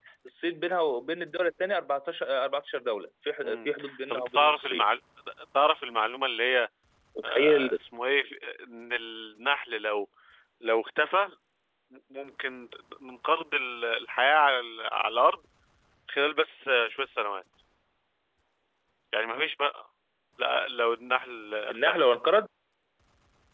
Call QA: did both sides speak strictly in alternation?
No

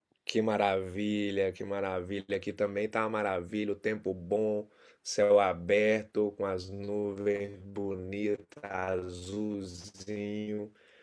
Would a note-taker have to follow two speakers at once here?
No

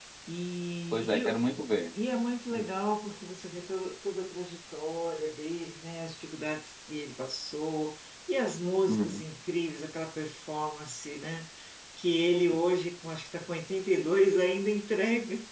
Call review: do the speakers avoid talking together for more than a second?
Yes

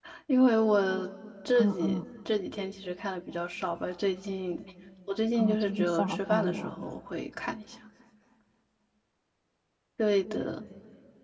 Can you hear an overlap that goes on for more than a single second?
Yes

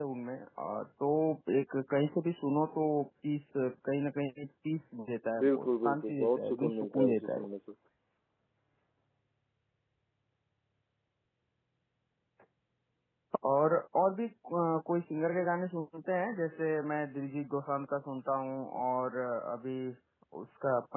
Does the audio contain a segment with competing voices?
Yes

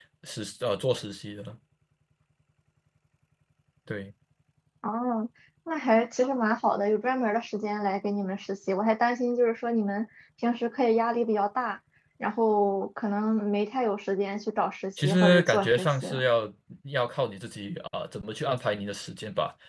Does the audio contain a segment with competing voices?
Yes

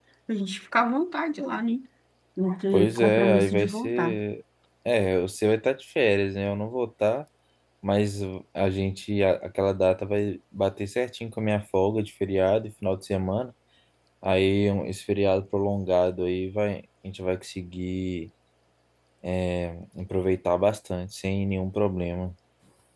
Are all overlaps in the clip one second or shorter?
No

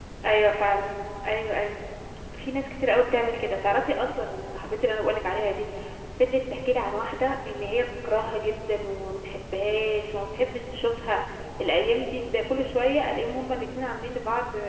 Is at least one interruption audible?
No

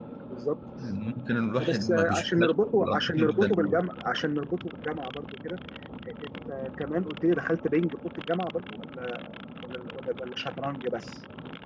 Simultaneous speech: Yes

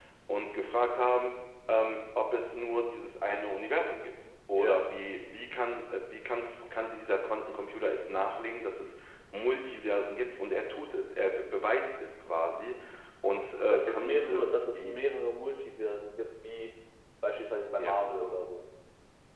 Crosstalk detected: Yes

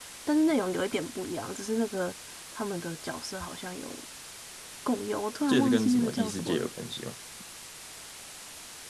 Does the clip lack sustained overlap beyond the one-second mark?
No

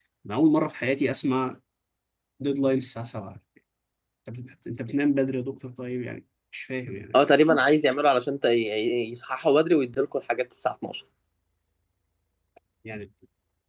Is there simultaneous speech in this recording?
No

